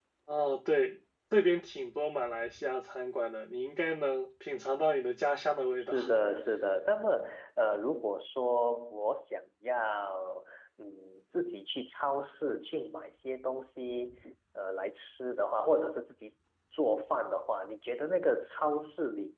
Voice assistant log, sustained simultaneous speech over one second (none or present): none